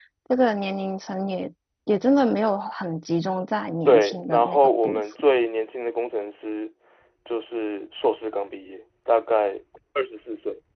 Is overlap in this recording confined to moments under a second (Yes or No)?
No